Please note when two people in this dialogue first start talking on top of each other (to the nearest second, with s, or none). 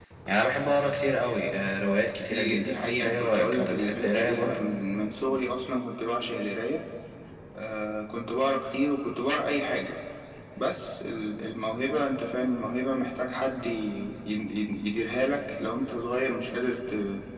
2 s